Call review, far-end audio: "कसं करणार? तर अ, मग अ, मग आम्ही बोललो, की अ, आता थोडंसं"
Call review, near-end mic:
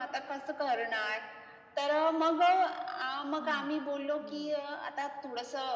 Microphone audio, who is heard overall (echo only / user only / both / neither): both